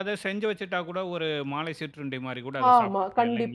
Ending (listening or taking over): taking over